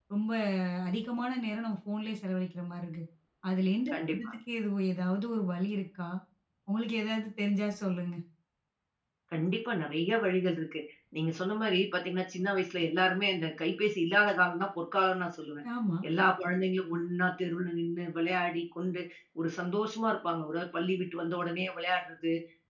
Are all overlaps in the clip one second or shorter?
Yes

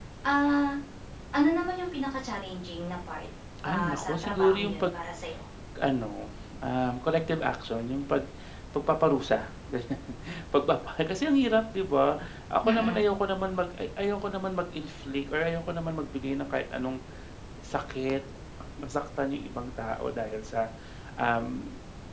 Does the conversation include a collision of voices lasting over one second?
Yes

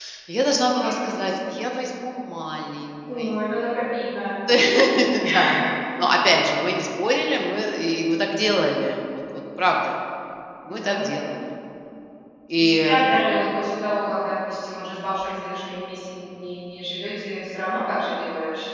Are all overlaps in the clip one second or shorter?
Yes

